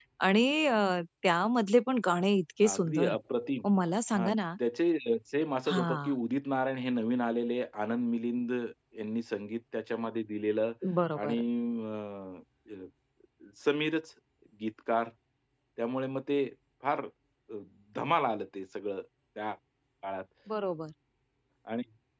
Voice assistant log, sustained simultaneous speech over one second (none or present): none